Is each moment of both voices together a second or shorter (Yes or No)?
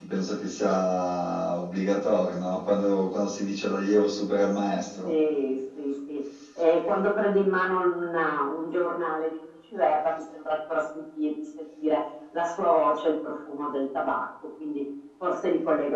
Yes